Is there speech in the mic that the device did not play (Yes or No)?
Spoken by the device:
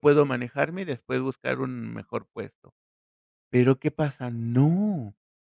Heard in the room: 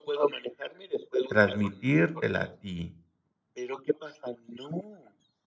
Yes